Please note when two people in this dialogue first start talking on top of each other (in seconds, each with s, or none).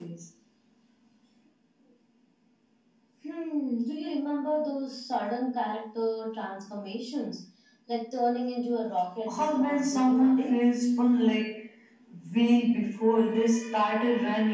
9.3 s